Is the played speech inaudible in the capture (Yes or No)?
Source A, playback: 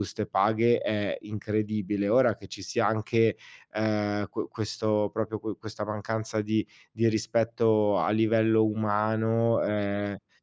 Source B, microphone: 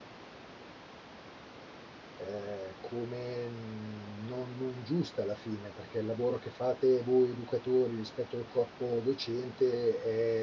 Yes